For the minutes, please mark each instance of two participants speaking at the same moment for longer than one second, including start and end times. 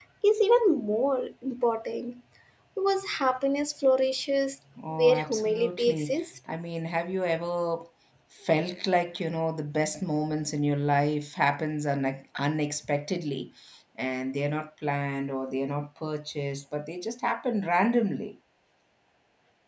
5.0-6.2

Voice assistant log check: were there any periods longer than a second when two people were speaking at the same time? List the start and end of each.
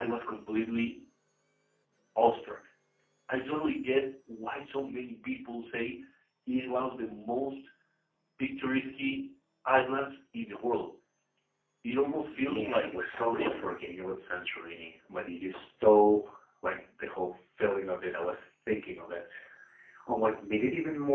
12.3-13.7

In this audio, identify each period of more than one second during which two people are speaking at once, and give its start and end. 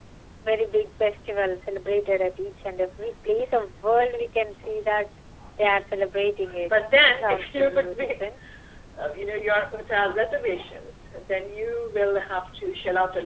6.7-8.2

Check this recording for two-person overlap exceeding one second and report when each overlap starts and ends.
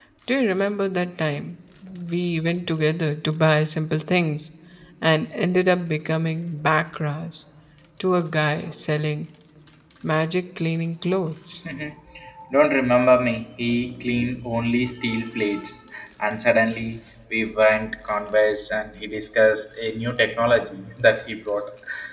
none

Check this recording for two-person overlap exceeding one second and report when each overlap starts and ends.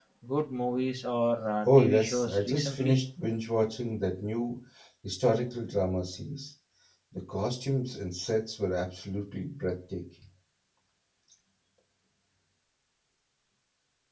1.6-3.0

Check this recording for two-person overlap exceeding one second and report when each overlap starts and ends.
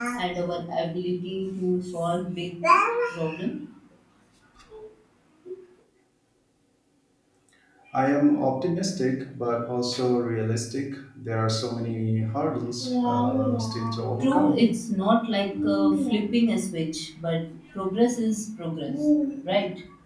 12.8-14.6

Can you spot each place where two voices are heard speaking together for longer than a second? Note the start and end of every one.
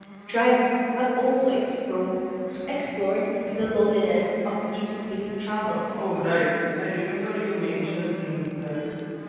none

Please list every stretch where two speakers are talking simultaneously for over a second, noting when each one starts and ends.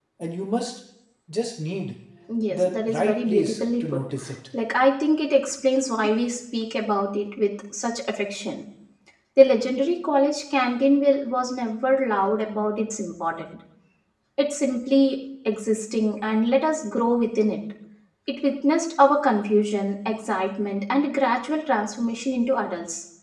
2.5-4.0

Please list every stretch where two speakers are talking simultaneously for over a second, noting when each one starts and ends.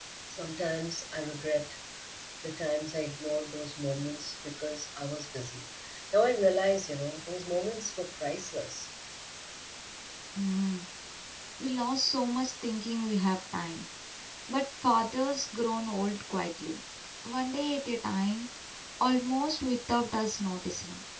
none

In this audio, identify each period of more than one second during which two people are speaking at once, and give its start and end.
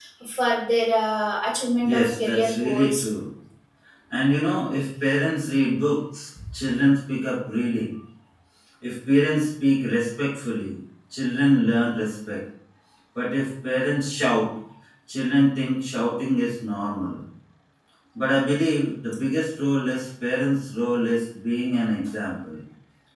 1.8-3.0

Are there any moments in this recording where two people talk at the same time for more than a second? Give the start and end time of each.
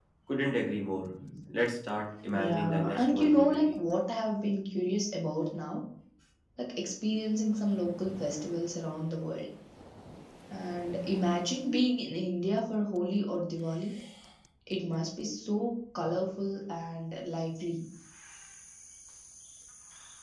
2.3-3.8

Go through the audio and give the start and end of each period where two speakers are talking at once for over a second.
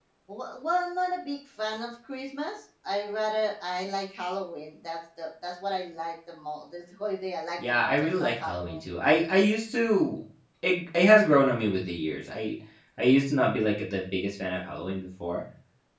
7.6-8.8

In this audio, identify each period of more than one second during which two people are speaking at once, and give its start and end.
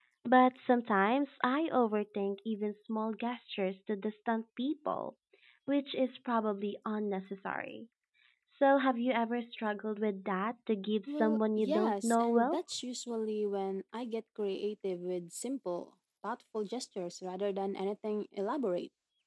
11.2-12.6

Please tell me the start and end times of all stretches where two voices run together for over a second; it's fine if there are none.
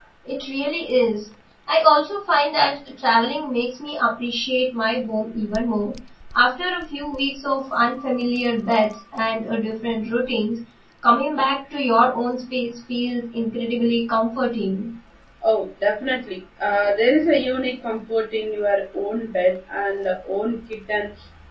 none

